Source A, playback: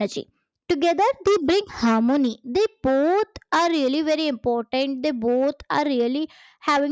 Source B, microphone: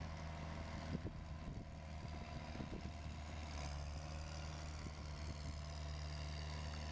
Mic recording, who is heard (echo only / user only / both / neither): neither